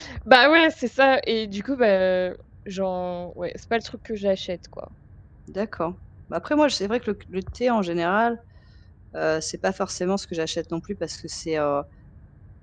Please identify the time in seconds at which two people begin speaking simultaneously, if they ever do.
none

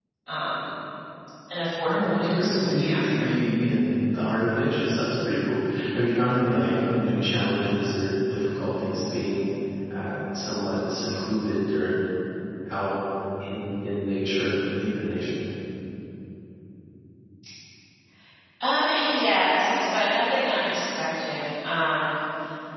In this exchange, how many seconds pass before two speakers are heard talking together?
1.9 s

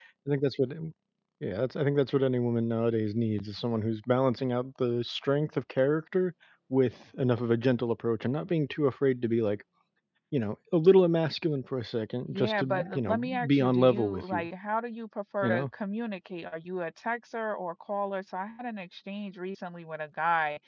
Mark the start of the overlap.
12.3 s

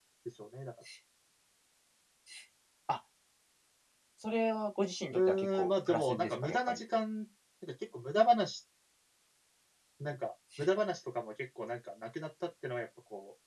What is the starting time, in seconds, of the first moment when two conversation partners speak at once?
5.1 s

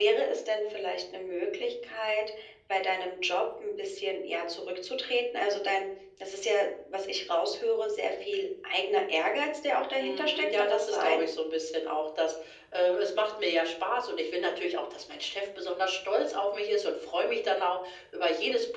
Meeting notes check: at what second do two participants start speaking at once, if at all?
10.0 s

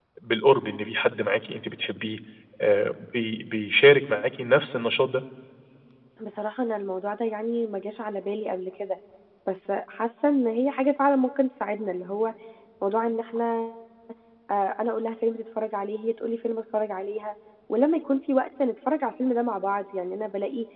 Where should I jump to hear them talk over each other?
none

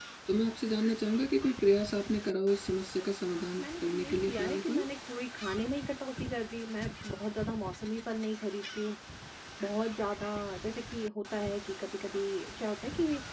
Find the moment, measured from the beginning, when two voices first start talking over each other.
3.6 s

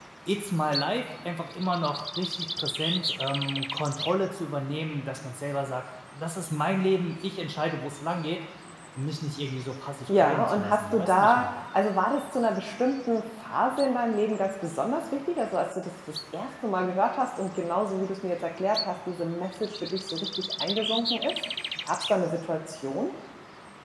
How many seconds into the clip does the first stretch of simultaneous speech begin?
10.1 s

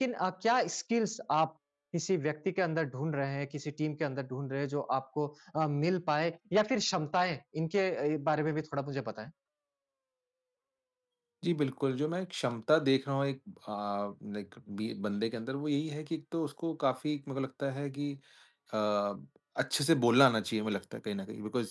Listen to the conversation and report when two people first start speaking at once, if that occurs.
none

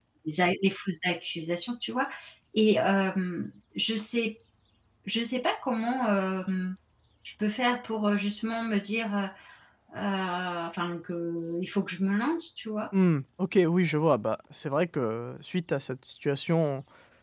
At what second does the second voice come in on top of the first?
none

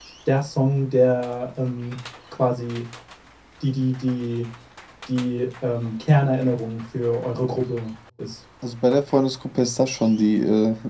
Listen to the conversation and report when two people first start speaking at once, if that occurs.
none

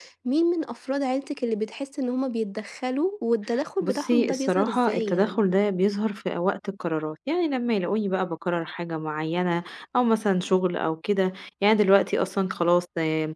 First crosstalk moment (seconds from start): 3.8 s

